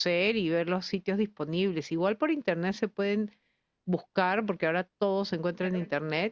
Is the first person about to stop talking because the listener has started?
No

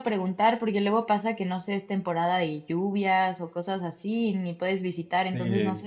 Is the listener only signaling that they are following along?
No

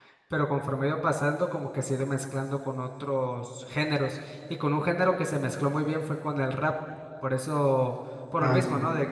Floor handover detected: No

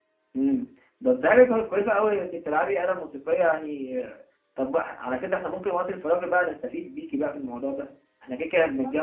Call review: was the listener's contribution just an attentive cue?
Yes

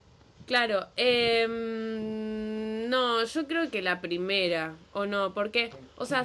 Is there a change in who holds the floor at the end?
No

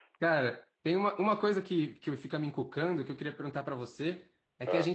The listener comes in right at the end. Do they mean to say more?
No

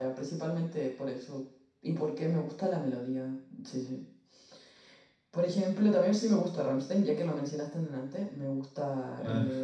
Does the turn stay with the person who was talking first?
Yes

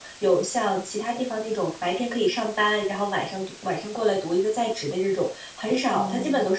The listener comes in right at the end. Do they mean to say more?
No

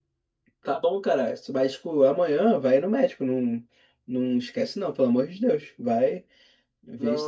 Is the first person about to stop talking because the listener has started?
Yes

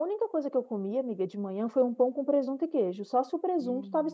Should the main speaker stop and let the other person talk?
Yes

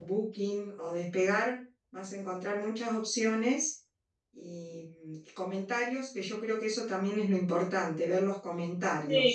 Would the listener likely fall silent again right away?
No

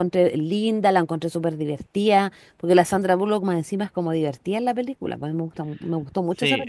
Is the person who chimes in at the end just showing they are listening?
No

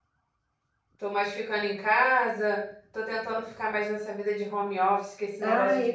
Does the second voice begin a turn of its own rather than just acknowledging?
Yes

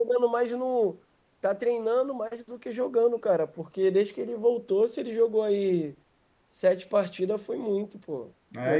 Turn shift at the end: Yes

